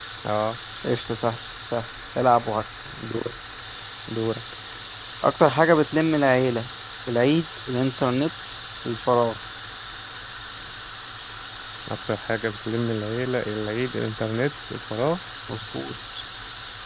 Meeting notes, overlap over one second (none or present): none